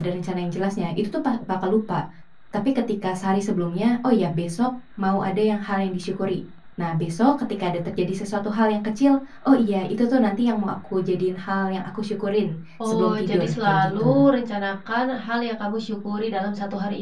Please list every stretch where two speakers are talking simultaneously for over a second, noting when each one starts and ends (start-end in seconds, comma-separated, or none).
12.8-14.2